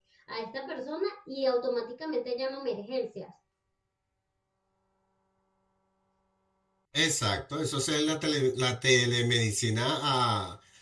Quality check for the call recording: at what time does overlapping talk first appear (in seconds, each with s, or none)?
none